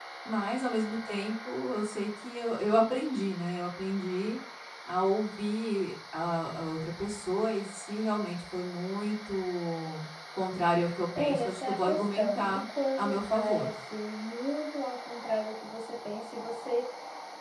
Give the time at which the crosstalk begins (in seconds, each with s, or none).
11.2 s